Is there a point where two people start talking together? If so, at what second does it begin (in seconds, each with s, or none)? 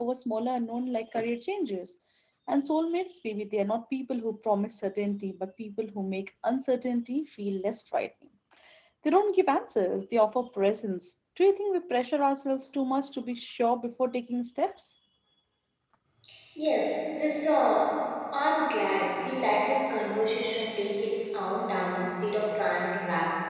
none